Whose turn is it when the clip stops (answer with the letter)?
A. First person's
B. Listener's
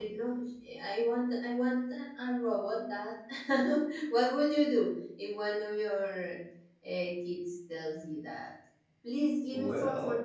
A